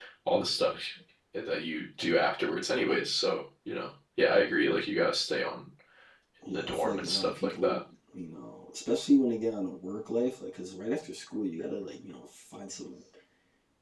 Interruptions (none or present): present